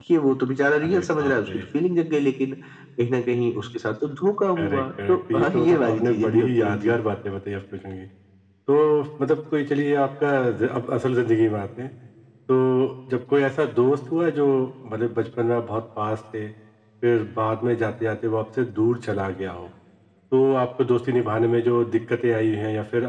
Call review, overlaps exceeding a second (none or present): present